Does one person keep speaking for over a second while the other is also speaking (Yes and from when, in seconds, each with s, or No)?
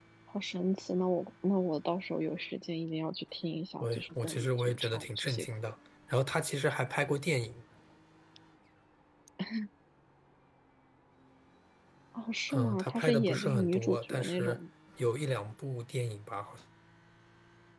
Yes, from 3.8 s